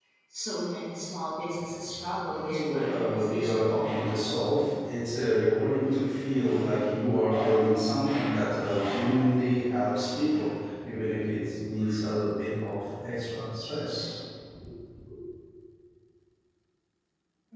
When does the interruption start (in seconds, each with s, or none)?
2.4 s